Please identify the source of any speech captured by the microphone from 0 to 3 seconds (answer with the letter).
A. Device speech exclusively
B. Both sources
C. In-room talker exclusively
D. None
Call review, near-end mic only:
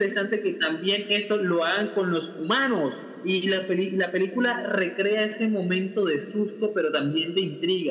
A